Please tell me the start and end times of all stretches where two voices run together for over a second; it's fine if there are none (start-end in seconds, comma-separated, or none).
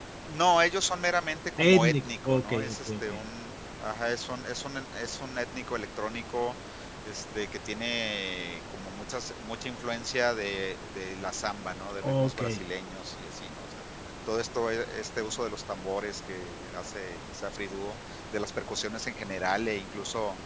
1.7-3.2